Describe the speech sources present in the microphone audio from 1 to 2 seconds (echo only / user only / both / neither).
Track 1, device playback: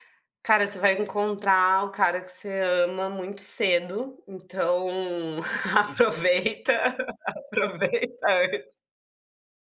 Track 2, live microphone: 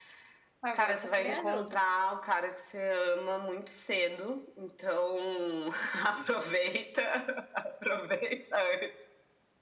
both